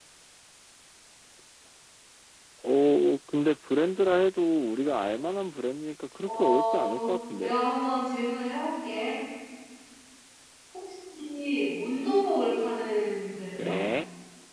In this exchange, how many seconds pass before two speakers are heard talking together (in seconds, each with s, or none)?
6.2 s